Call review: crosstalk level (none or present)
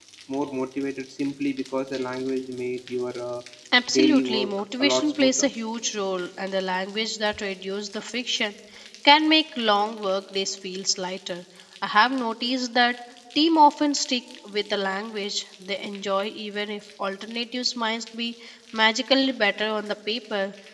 present